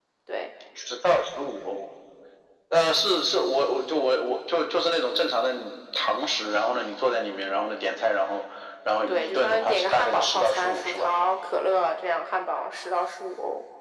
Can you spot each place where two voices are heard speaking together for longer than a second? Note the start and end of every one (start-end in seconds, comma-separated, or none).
9.1-11.1